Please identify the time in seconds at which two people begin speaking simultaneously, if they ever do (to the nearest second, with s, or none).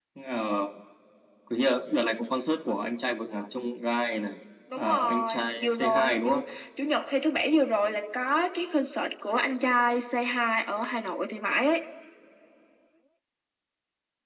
5 s